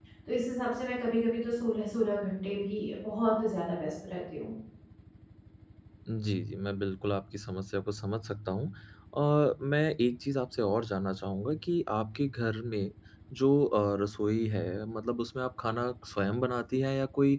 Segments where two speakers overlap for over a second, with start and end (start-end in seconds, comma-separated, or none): none